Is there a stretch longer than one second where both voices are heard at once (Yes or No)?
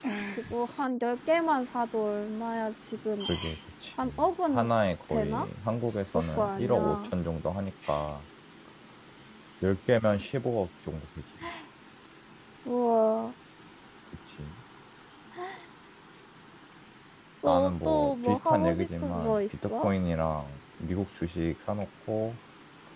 Yes